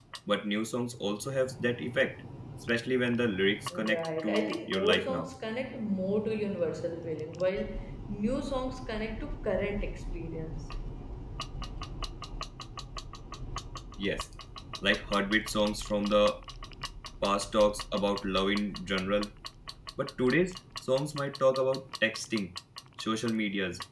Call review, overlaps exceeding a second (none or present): present